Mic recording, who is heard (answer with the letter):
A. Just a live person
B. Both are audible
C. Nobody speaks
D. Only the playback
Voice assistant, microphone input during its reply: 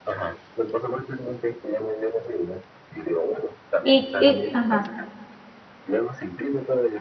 B